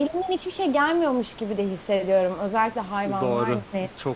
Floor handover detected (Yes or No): Yes